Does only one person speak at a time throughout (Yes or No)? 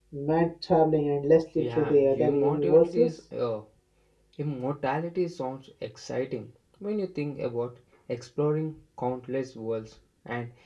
No